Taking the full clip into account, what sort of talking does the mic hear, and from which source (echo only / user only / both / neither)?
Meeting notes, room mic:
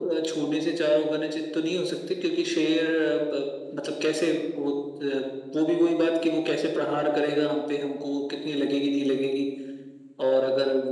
echo only